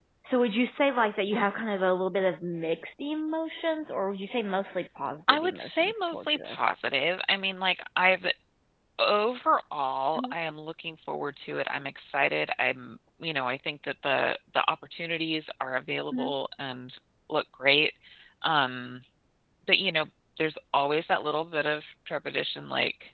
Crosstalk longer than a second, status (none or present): present